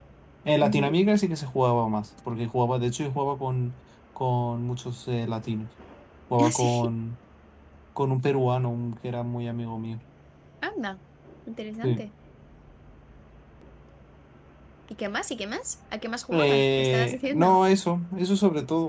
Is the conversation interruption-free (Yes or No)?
No